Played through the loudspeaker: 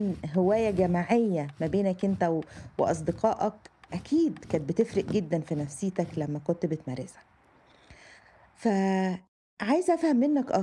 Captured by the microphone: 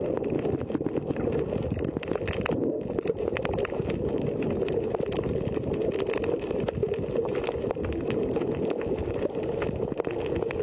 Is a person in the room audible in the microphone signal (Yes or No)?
No